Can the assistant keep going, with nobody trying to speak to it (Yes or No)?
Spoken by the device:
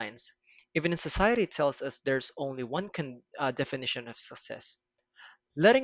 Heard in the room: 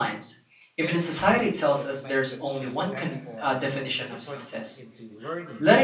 No